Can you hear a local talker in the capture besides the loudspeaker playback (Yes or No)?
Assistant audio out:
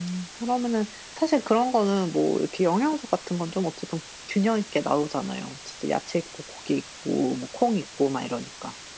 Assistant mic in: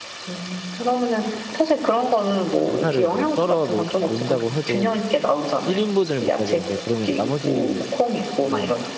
Yes